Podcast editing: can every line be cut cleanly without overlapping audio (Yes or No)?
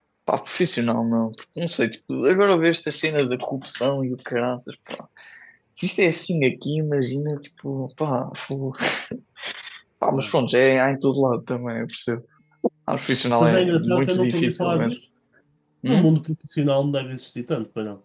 No